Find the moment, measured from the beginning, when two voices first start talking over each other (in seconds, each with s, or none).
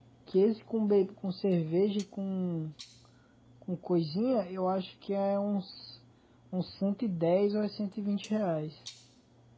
none